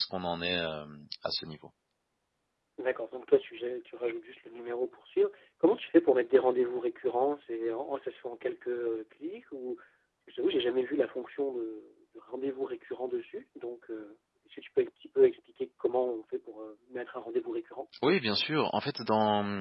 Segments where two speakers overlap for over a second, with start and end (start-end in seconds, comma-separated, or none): none